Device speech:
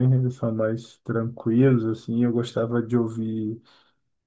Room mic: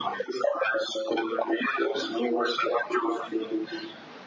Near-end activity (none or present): none